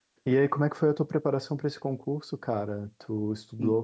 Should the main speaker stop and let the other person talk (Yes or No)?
No